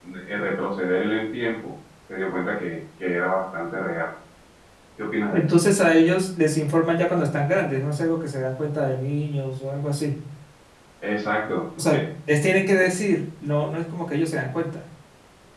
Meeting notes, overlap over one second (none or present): none